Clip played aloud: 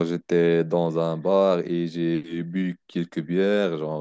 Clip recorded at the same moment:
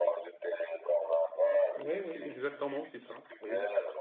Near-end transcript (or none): Oui, oui, exactement, c'est ça. Oui,